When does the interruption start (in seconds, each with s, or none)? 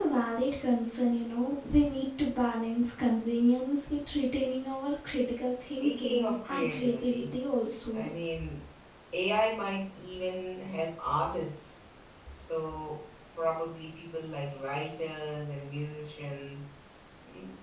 5.7 s